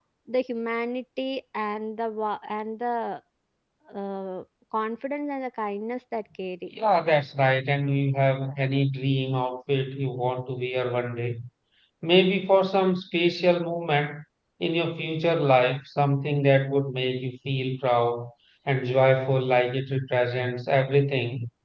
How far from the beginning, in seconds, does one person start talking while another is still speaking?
none

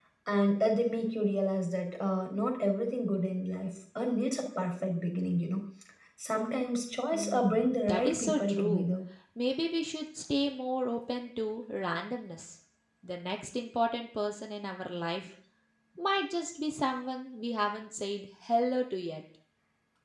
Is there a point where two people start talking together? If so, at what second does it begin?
7.1 s

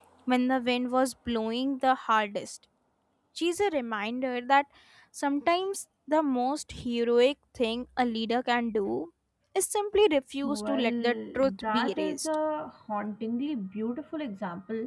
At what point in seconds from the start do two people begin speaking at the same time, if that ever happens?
10.4 s

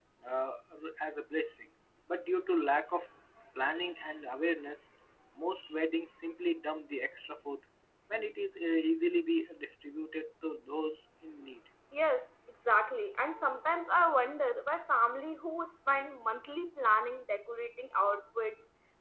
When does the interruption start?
none

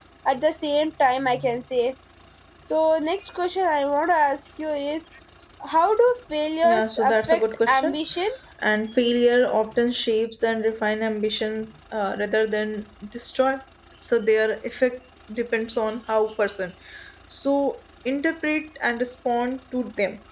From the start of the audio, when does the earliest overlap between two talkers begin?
6.6 s

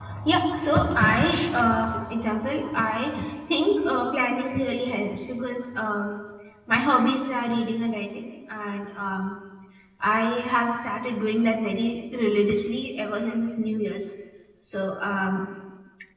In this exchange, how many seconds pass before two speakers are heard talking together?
none

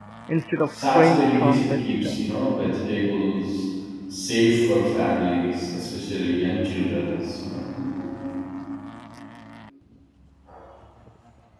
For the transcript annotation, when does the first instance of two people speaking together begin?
0.7 s

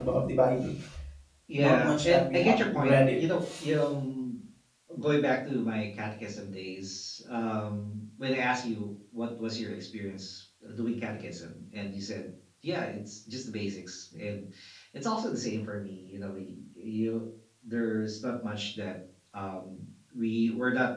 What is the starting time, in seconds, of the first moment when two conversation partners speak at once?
1.6 s

